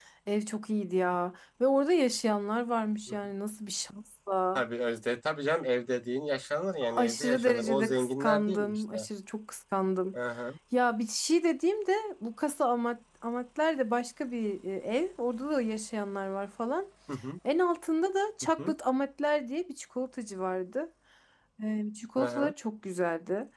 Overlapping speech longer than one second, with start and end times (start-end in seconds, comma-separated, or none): 6.8-9.1